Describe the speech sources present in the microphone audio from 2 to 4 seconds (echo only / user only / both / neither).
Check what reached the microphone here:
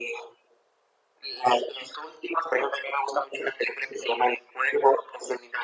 echo only